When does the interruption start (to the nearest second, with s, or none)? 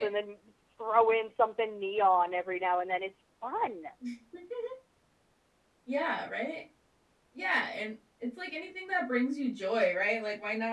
none